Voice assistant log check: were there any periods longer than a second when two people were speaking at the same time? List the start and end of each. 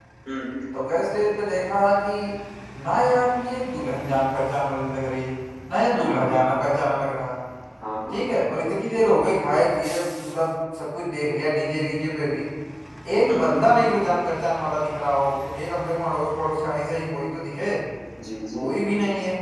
none

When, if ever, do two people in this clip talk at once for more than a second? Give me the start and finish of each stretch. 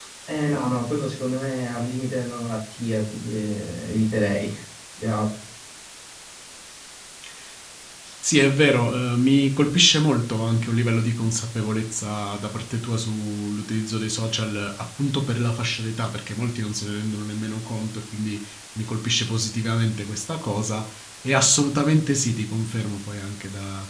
none

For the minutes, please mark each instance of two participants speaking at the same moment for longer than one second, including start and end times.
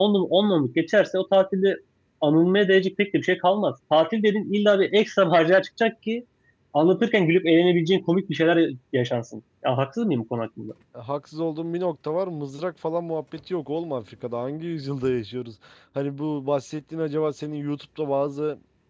none

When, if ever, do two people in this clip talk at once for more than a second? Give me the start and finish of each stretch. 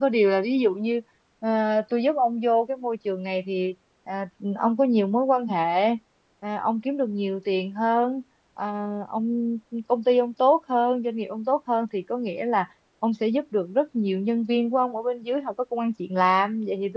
none

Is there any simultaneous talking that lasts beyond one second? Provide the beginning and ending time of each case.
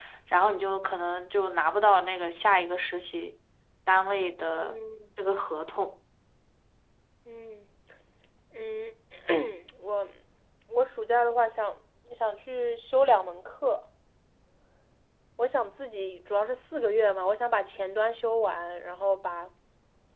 none

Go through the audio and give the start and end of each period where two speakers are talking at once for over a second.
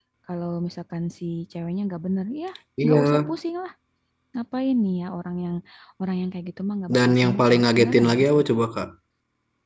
6.9-8.3

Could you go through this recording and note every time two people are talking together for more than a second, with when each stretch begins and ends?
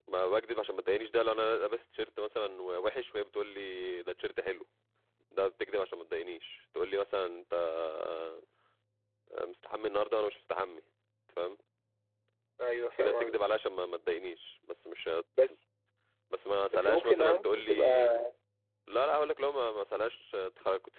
16.7-18.1

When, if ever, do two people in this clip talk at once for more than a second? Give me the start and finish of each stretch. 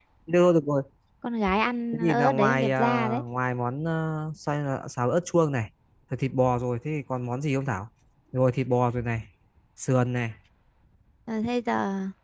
1.9-3.2

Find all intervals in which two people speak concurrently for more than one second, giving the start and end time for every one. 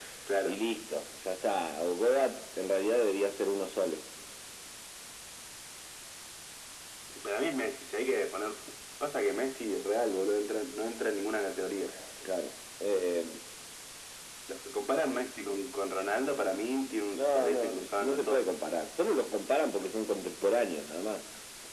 17.2-18.6

